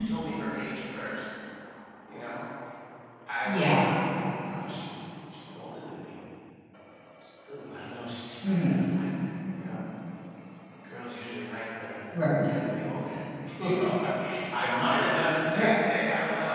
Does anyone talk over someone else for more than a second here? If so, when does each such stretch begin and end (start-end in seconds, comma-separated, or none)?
none